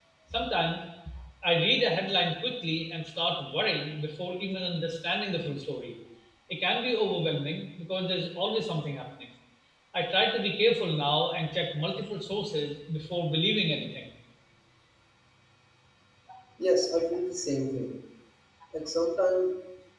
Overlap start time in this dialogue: none

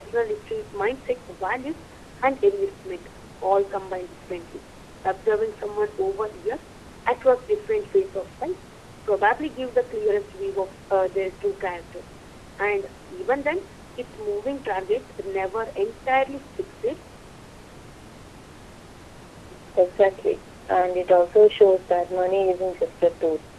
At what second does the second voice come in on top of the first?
none

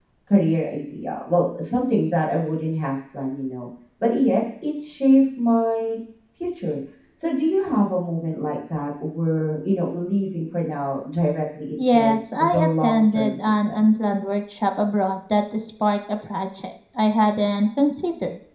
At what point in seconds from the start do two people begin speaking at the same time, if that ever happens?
11.8 s

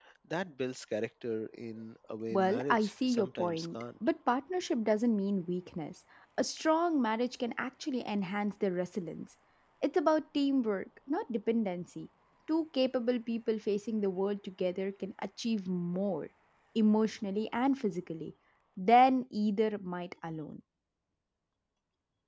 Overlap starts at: 2.3 s

